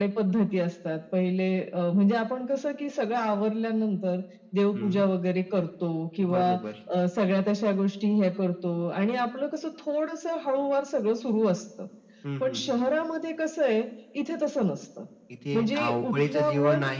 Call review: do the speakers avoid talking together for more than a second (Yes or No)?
No